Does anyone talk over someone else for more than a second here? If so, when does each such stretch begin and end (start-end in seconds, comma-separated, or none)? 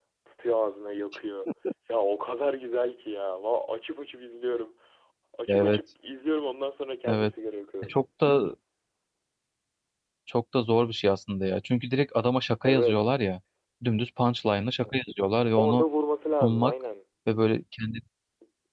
none